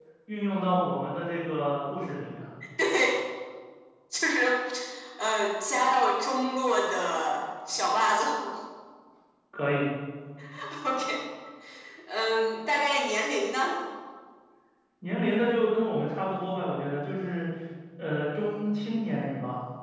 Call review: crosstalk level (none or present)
none